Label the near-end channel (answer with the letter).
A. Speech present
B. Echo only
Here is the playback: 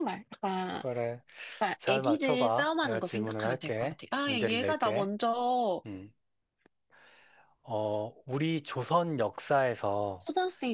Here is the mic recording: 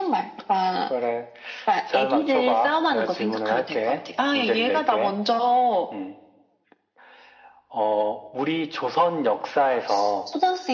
B